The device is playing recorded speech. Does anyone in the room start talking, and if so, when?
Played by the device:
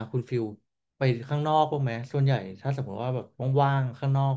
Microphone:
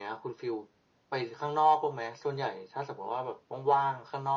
none

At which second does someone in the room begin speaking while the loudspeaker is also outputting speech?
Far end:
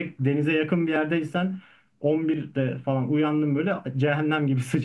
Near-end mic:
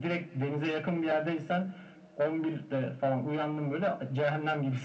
none

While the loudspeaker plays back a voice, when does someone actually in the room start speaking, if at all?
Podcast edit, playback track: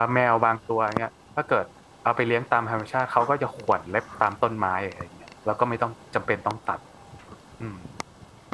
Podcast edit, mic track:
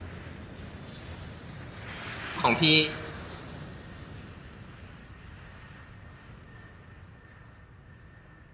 2.4 s

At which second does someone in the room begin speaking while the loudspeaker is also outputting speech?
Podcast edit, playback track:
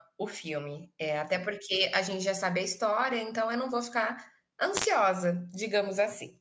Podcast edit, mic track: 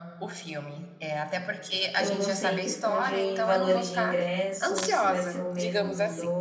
2.0 s

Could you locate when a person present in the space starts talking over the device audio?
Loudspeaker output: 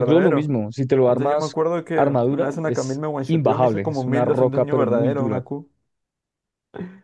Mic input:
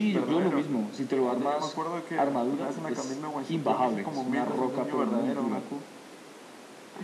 none

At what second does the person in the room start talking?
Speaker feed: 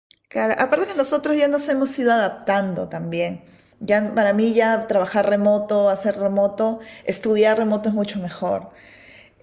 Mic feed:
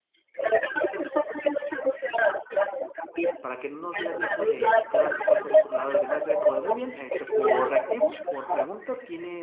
3.4 s

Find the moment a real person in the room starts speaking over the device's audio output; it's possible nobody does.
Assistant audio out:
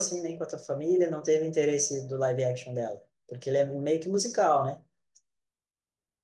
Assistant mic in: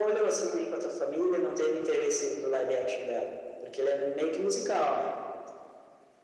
none

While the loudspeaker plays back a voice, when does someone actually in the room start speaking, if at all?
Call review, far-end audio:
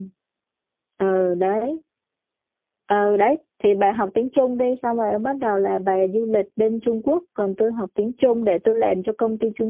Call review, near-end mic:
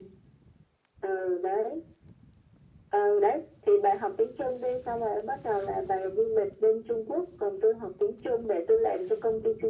none

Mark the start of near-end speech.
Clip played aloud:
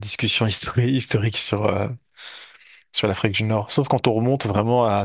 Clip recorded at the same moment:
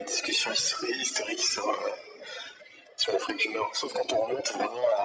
none

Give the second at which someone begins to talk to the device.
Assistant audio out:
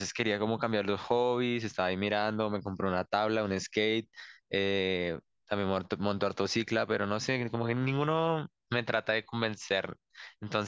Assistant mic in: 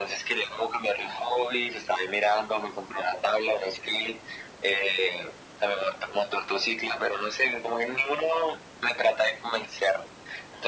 none

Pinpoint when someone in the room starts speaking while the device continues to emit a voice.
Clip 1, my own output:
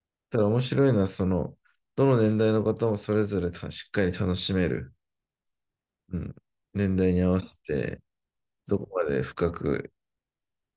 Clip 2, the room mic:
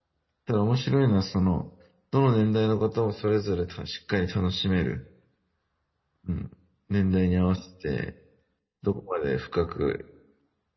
none

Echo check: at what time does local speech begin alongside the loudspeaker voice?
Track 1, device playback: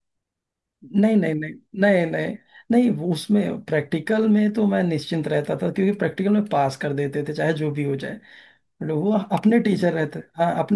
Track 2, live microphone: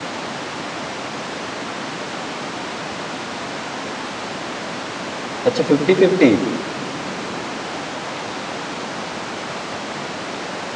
5.4 s

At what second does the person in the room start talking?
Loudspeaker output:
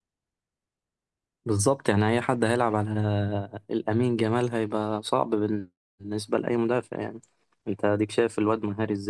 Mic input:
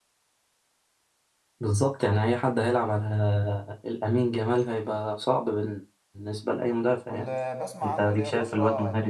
7.1 s

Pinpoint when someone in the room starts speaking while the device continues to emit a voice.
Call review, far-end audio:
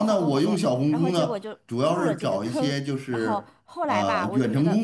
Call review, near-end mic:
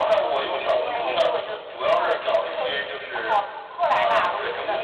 0.7 s

